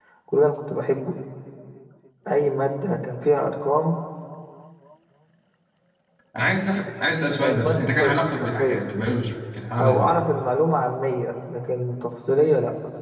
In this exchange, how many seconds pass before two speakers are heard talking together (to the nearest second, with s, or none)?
7 s